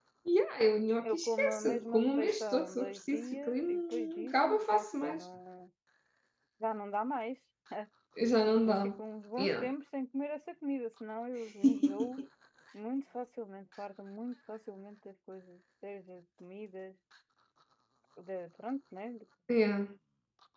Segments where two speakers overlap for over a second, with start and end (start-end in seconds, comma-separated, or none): 1.0-5.2